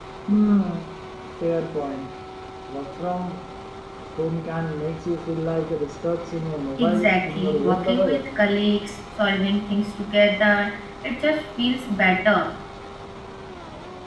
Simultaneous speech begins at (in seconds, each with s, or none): 6.8 s